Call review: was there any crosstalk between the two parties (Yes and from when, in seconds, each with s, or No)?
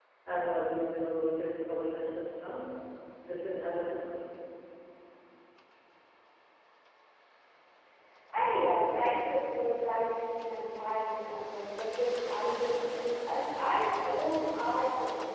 No